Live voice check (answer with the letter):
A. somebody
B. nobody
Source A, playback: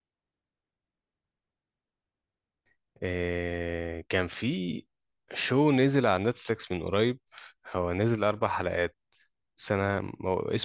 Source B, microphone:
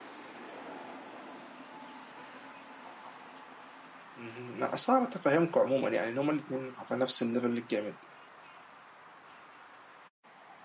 A